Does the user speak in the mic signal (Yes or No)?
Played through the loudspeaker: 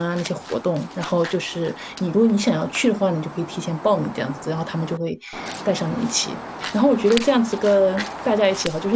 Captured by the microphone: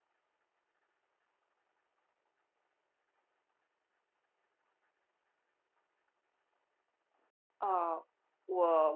Yes